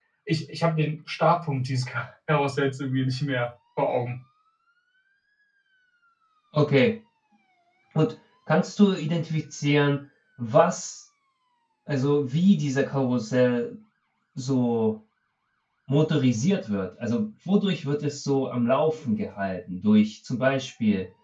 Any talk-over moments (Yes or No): No